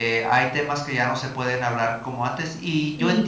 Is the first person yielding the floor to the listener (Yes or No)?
No